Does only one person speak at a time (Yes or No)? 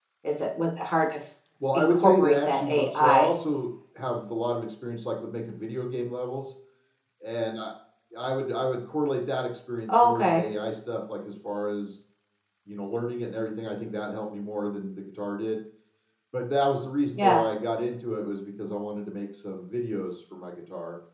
No